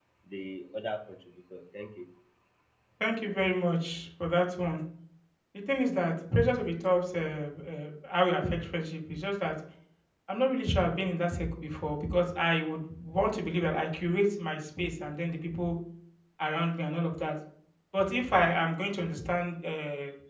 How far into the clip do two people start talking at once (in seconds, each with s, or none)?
none